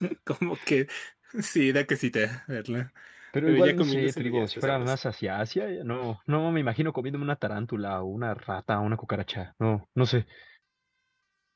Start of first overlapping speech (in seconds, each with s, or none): 3.5 s